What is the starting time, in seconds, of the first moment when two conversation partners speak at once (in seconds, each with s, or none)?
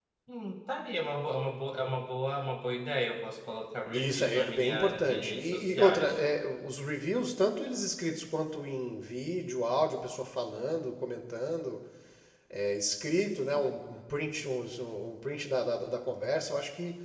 3.9 s